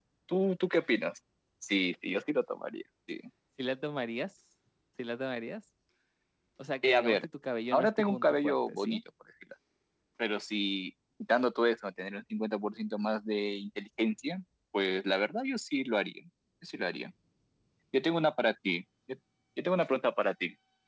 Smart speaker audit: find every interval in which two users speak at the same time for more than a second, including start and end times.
7.7-9.0

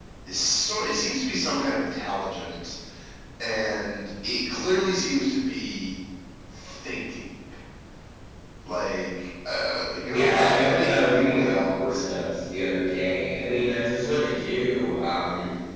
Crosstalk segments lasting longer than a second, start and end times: 10.1-12.0

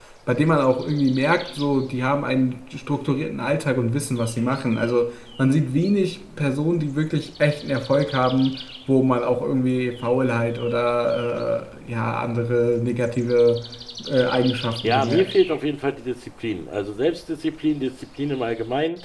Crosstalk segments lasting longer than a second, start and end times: none

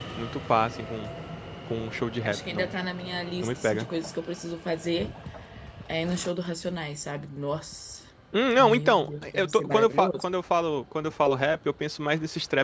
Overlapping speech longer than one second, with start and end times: 8.6-10.2

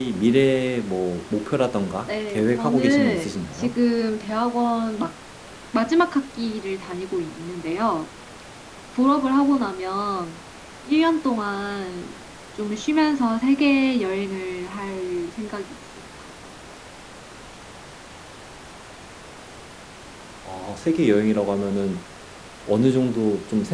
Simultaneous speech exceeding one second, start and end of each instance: 2.1-3.8

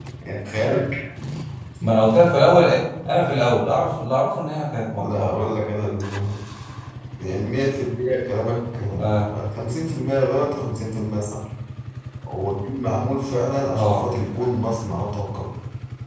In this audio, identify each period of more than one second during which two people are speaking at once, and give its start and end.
none

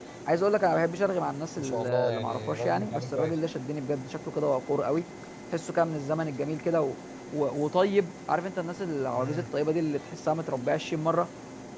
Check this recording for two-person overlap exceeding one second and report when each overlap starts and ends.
1.6-3.4

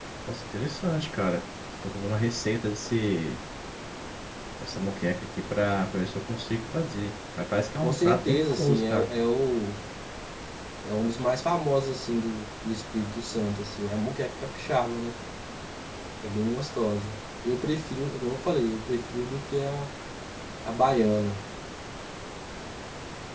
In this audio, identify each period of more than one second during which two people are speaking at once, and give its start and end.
7.8-9.1

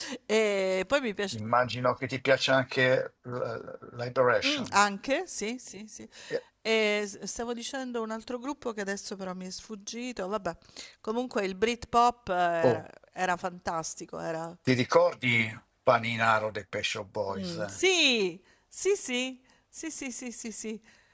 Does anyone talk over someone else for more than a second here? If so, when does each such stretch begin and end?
none

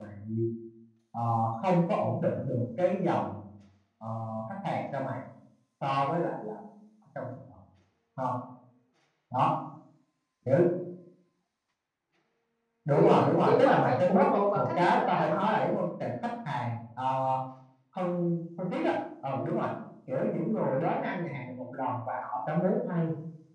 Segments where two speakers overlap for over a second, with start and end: 12.9-15.4

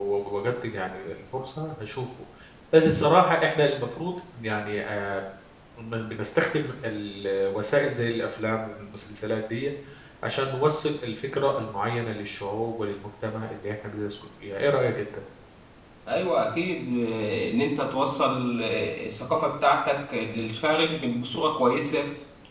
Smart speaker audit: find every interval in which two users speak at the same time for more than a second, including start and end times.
none

